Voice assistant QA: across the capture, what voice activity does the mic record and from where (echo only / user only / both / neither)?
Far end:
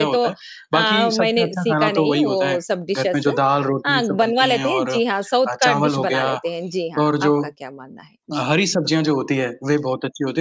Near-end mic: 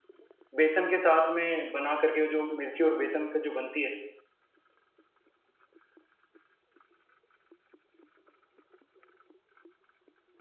user only